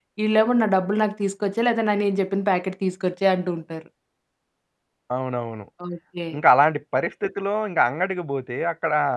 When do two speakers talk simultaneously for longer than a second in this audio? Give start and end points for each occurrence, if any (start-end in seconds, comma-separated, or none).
none